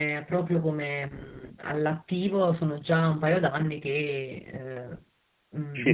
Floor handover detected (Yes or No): Yes